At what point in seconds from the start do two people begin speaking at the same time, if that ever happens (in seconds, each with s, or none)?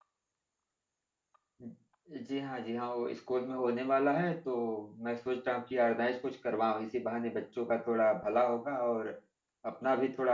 none